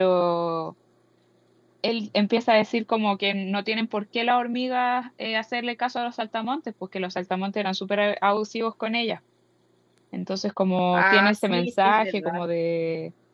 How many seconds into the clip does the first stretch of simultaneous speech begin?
10.9 s

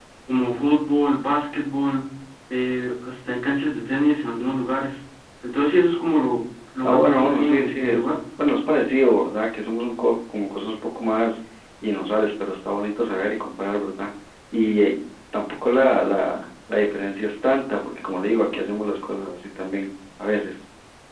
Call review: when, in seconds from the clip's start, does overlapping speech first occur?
6.8 s

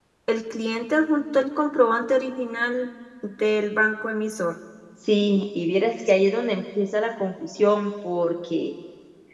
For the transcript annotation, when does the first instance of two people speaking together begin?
none

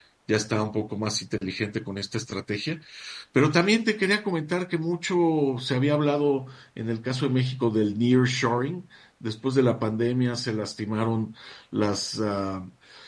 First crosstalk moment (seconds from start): none

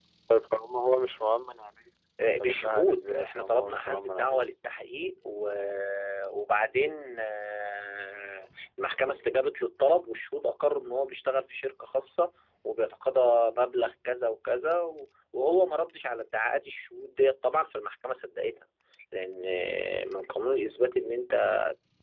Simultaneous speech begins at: 2.4 s

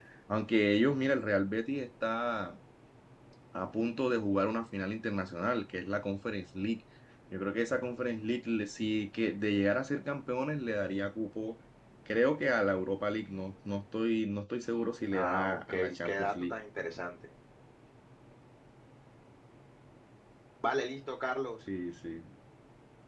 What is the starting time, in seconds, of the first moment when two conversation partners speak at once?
15.1 s

